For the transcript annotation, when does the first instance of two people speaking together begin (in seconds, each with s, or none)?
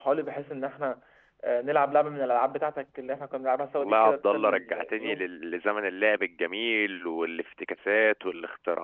3.8 s